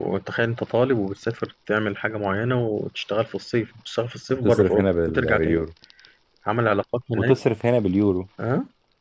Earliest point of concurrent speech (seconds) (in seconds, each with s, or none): 4.3 s